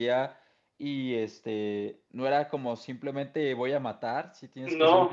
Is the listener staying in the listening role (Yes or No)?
Yes